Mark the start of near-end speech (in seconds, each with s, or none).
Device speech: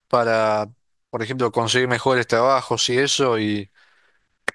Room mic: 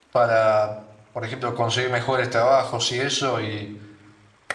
none